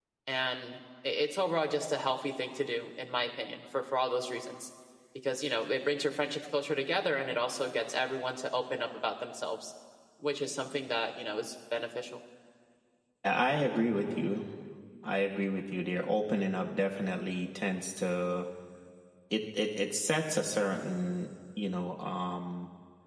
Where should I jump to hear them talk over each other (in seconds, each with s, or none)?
none